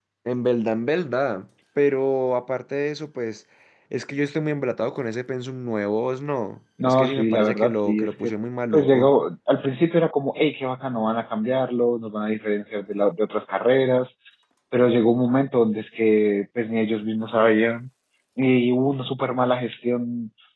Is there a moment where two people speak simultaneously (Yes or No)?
Yes